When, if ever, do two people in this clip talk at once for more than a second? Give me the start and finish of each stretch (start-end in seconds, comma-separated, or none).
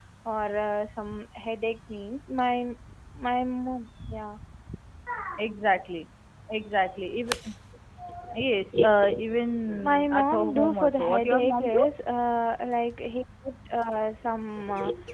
9.8-11.8